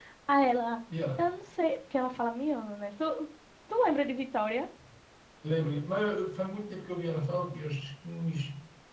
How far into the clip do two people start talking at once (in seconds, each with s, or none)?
none